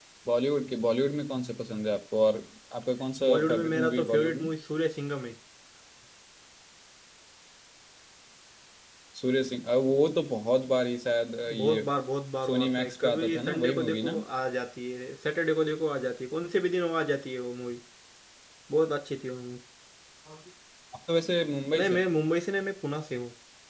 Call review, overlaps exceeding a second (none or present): present